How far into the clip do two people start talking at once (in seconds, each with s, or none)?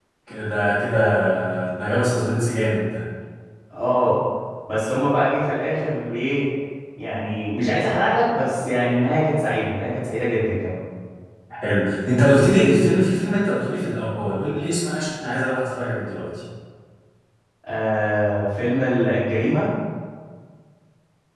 none